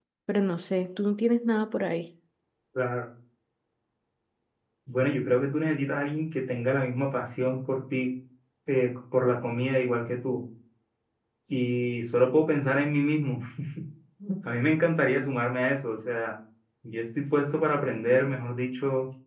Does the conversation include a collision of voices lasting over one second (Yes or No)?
No